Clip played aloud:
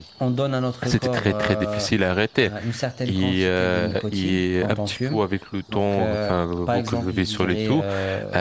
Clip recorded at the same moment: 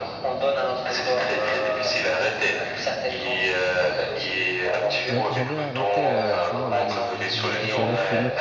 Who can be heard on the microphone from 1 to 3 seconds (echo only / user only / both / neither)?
echo only